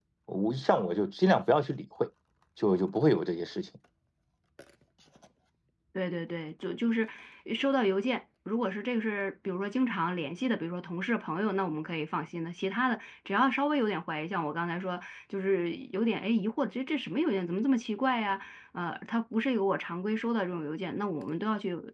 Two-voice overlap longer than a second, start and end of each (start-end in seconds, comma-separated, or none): none